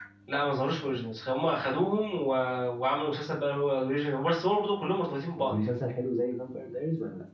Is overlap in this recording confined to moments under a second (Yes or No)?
Yes